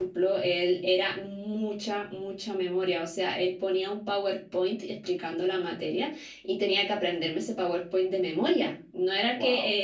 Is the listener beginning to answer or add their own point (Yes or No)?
No